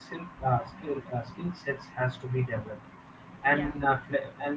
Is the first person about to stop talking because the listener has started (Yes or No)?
No